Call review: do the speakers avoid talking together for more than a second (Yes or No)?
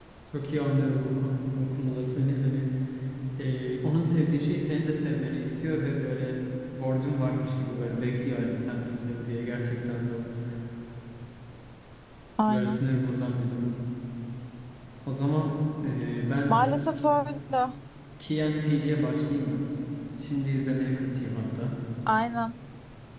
Yes